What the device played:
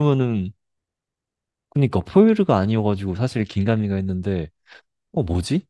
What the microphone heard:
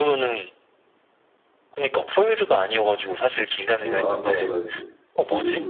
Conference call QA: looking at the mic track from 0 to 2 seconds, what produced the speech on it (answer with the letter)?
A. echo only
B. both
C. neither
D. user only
A